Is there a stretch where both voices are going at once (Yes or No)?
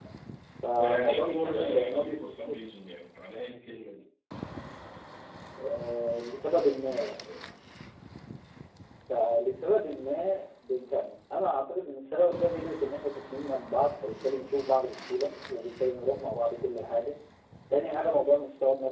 Yes